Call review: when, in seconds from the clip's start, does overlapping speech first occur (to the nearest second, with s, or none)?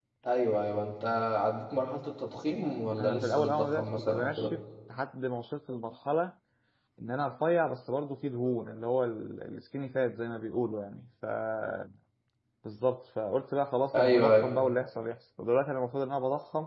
3 s